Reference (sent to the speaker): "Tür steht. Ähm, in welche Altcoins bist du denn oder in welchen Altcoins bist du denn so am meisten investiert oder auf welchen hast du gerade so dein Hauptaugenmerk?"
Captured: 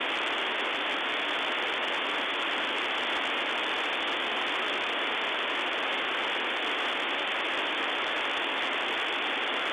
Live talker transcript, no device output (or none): none